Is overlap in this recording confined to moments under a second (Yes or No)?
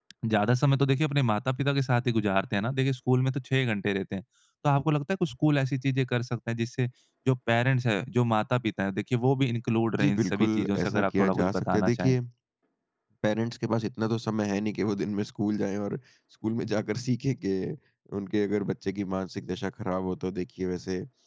No